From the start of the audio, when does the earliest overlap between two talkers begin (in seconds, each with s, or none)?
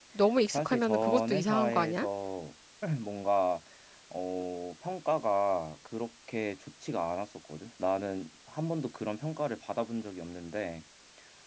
0.5 s